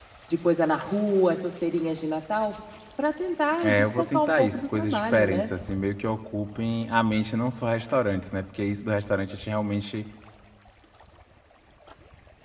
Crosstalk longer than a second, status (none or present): present